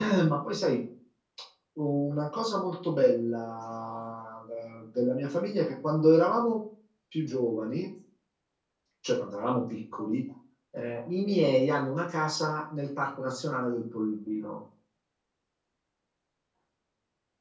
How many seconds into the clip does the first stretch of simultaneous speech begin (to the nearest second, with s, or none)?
none